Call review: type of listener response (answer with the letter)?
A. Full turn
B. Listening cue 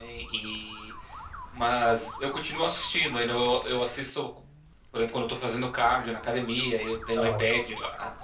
B